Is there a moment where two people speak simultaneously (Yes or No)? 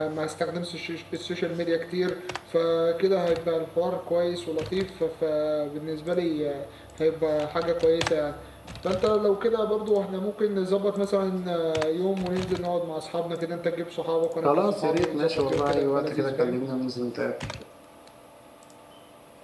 Yes